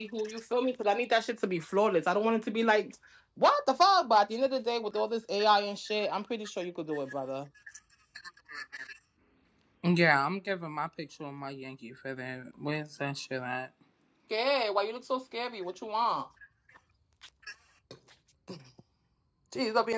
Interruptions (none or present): none